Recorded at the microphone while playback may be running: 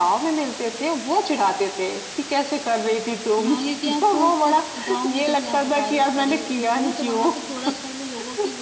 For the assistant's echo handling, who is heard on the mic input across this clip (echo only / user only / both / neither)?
echo only